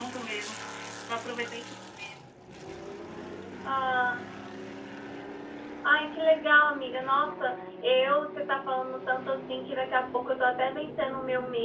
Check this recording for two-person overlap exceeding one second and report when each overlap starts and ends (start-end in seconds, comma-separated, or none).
none